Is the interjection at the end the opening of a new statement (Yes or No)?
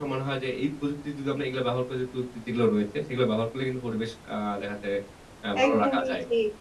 Yes